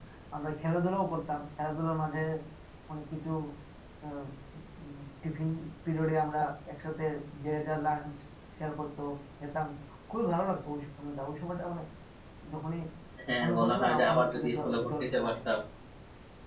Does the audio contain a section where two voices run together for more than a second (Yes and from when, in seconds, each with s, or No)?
Yes, from 13.4 s